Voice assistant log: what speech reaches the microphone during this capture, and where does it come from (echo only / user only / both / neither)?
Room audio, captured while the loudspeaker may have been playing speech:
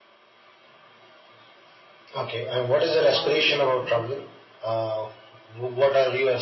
both